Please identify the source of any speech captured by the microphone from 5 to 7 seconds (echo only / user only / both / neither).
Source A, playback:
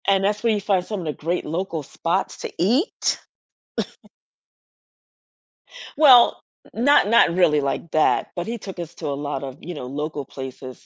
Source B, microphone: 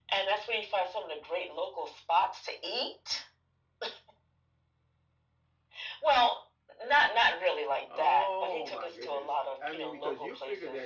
echo only